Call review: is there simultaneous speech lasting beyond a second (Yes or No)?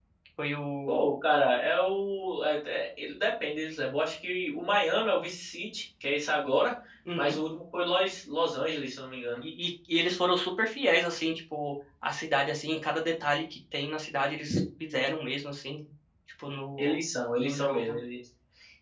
No